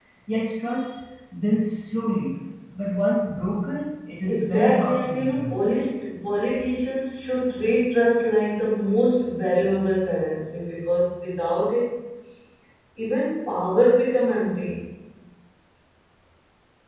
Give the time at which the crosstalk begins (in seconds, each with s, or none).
4.3 s